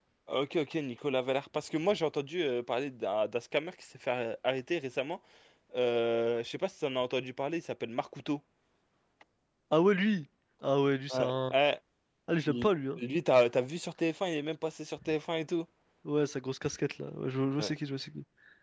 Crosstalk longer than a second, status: none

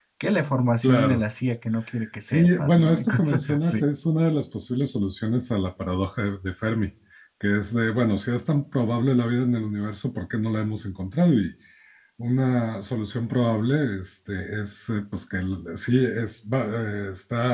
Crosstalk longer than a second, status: present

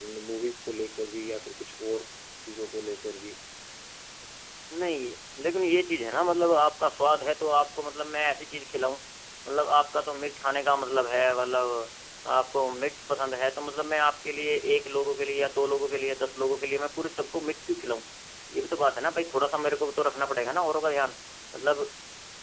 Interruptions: none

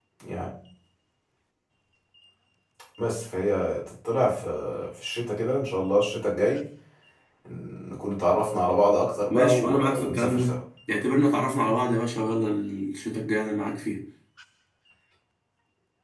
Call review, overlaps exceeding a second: present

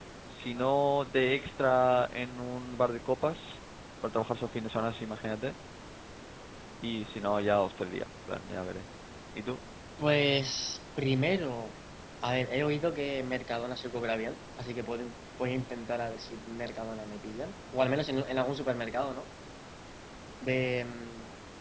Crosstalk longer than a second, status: none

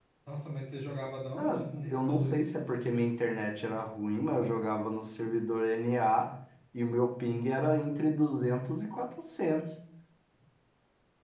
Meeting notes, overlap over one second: present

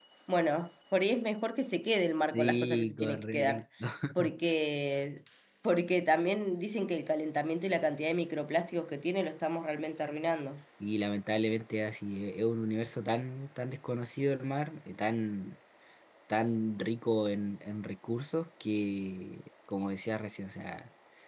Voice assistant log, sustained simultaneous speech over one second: present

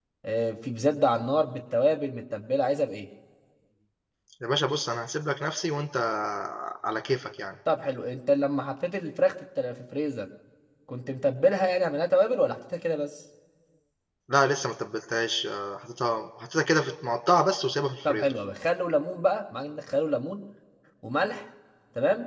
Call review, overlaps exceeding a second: none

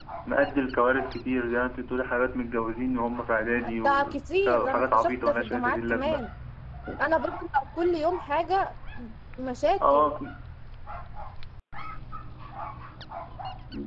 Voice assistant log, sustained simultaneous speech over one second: present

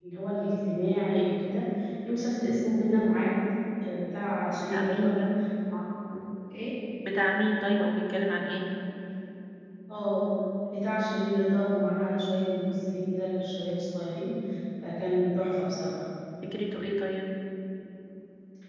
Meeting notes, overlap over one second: none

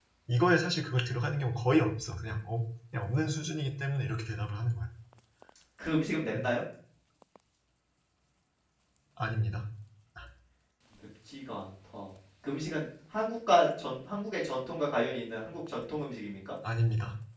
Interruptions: none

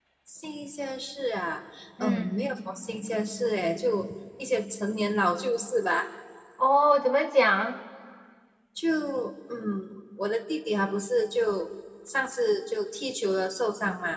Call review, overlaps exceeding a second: none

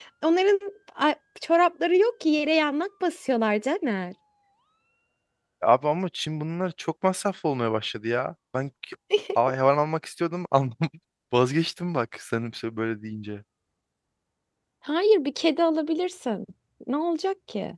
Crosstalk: none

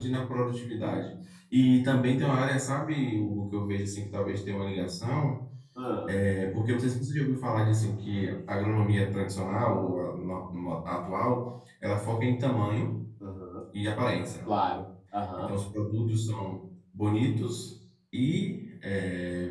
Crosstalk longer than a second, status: none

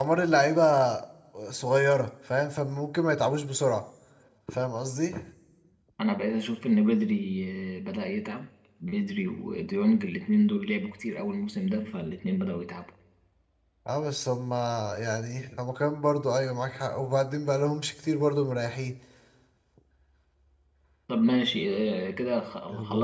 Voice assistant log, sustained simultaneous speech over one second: none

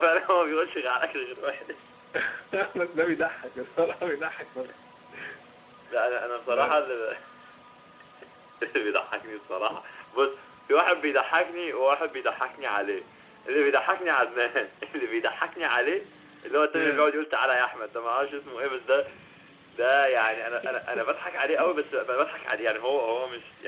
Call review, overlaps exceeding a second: none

